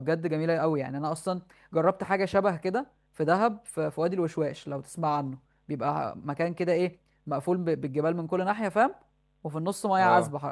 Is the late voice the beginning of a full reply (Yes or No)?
No